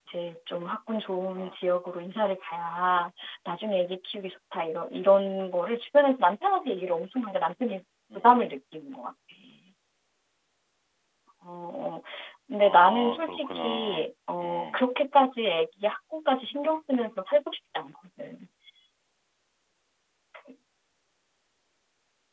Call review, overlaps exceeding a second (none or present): present